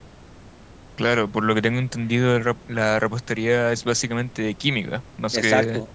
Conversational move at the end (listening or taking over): taking over